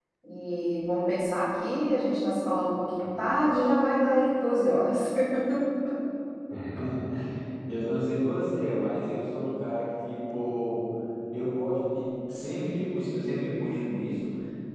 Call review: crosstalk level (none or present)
none